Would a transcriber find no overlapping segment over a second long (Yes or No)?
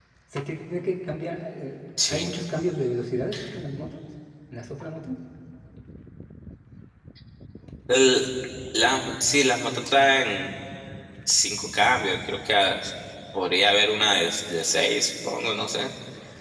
Yes